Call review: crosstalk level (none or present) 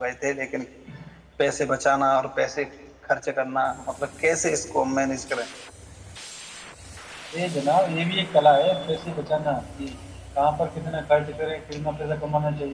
none